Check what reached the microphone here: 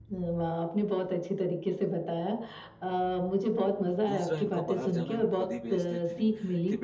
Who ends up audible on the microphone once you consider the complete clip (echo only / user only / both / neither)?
both